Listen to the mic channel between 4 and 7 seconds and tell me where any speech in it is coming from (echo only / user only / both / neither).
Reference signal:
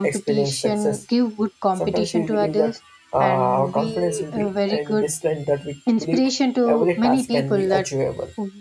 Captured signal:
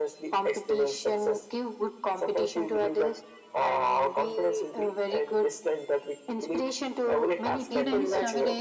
echo only